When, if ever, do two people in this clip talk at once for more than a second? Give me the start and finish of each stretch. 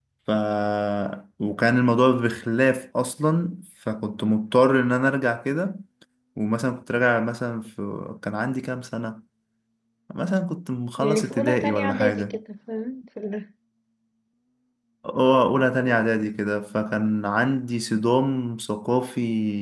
11.0-12.4

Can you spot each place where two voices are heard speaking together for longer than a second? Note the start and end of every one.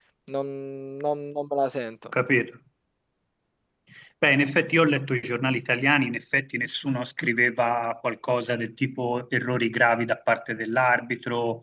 none

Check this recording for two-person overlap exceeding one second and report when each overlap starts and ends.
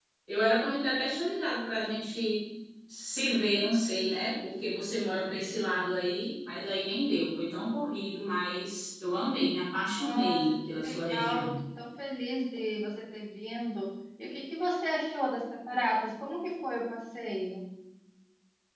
9.9-11.5

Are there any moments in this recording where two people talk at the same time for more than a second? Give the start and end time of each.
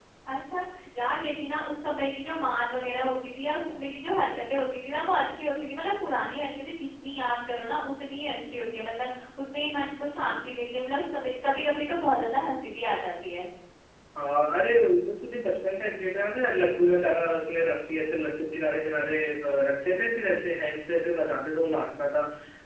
none

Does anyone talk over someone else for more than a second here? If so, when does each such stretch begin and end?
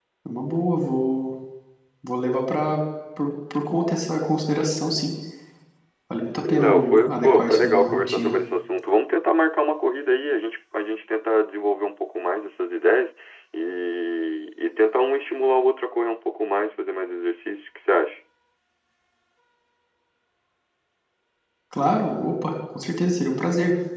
6.4-8.4

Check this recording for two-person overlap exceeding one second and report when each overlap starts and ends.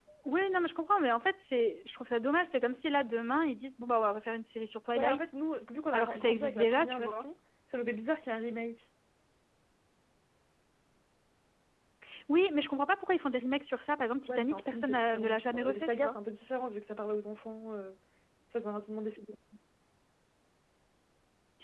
5.9-7.2, 14.3-16.1

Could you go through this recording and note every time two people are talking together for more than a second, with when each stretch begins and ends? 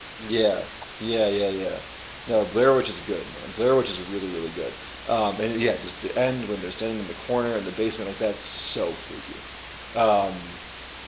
none

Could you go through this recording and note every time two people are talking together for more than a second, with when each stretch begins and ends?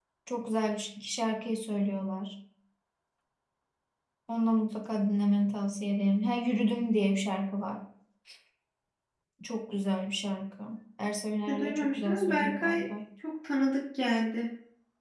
11.5-12.8

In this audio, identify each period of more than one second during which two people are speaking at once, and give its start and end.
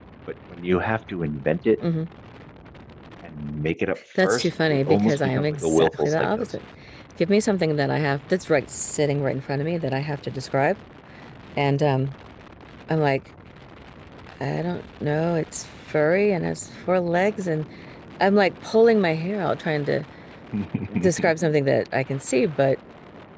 4.2-6.4

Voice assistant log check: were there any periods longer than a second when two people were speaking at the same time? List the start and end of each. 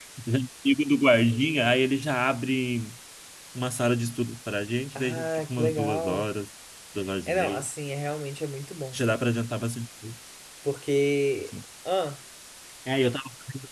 5.0-6.2

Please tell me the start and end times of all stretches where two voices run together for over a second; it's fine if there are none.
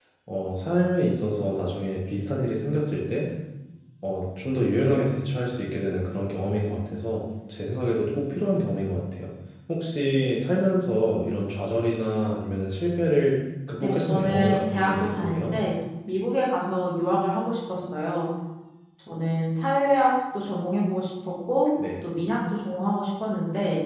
13.8-15.5

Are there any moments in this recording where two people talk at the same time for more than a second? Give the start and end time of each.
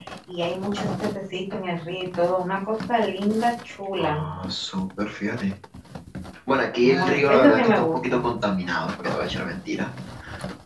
6.8-8.2

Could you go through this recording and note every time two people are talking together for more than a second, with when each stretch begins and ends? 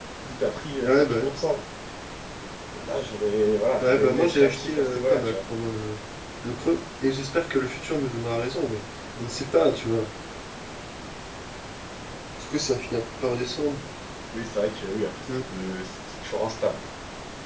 3.8-5.3

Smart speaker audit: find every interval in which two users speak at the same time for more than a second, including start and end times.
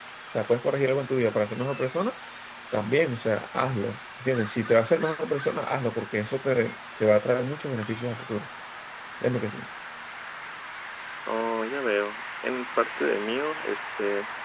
none

